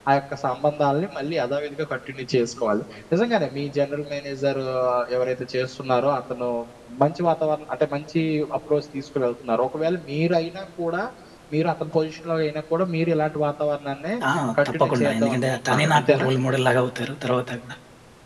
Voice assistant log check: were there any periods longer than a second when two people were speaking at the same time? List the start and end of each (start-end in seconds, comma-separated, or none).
14.7-16.3